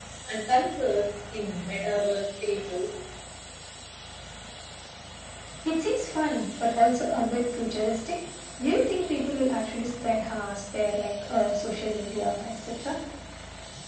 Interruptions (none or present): none